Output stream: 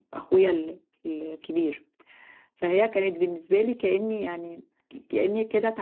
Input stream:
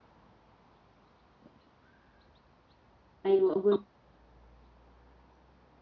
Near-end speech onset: 3.2 s

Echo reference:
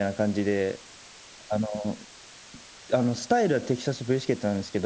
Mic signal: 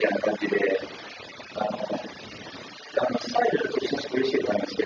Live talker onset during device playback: none

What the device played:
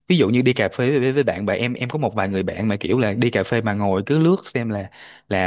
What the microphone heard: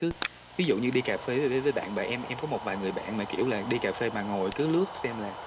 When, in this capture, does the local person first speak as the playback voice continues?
none

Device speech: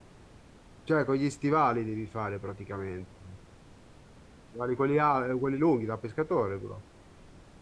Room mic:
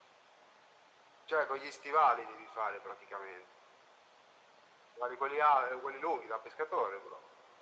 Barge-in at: none

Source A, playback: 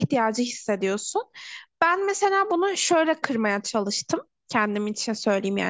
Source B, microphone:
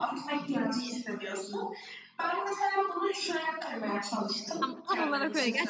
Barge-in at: 4.6 s

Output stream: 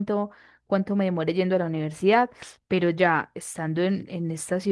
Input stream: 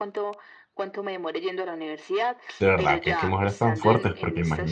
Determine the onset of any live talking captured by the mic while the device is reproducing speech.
2.6 s

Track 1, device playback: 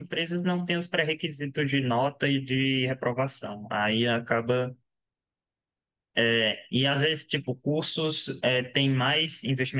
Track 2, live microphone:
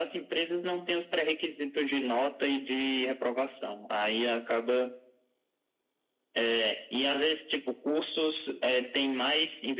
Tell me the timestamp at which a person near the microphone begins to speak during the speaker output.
none

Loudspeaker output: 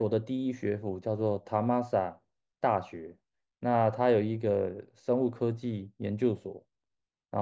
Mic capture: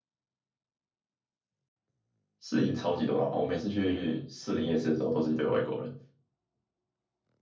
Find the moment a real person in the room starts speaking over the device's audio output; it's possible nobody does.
2.4 s

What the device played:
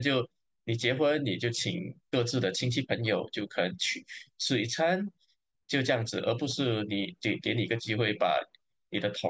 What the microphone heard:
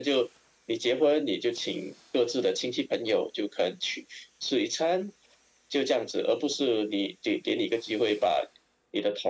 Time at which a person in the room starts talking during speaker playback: none

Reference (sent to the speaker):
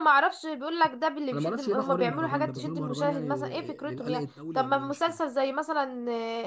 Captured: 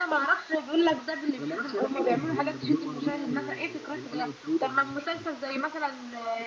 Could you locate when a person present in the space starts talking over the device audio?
none

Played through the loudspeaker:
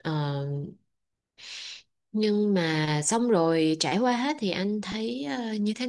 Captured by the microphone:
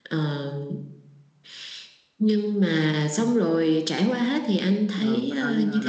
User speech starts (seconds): 5.0 s

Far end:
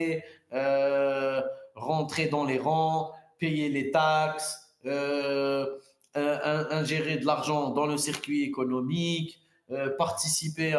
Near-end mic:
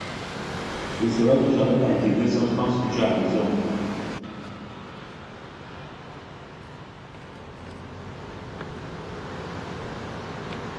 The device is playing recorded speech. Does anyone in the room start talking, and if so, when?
1.0 s

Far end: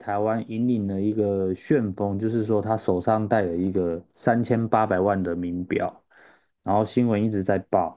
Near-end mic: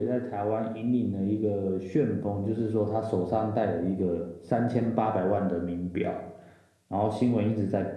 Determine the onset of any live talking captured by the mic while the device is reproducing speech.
none

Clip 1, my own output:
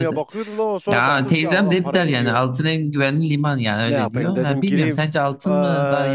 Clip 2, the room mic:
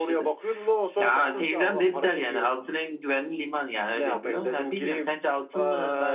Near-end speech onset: none

